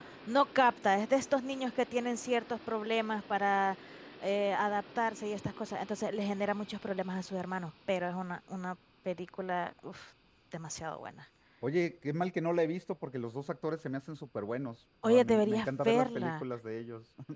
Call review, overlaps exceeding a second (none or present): present